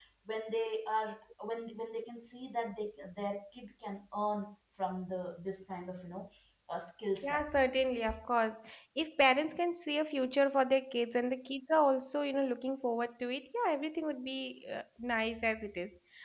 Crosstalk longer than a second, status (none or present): none